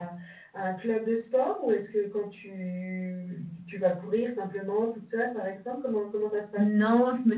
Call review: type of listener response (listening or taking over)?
taking over